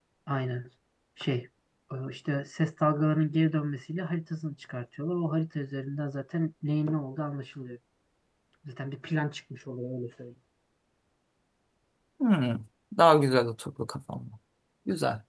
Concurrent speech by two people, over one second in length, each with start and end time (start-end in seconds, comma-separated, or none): none